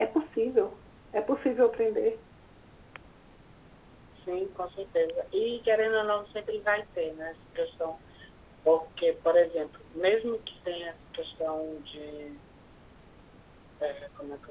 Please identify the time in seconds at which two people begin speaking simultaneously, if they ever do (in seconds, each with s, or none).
none